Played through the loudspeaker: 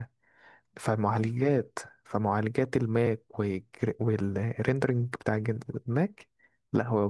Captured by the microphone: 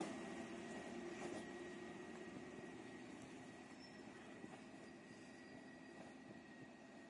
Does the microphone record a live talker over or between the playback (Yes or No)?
No